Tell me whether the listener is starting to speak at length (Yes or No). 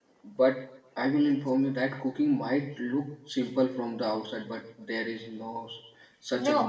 Yes